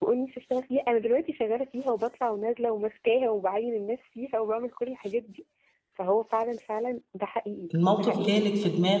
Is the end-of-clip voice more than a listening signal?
Yes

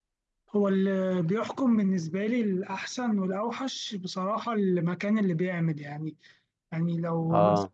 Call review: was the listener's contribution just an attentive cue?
Yes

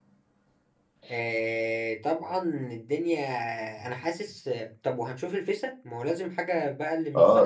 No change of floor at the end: No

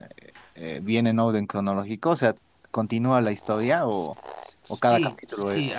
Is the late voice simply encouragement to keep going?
No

